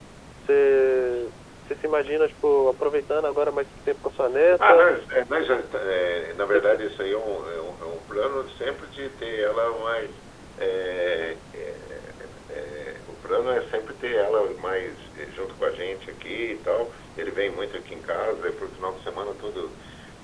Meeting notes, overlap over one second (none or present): none